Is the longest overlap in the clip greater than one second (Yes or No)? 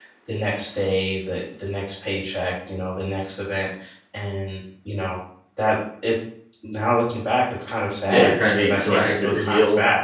Yes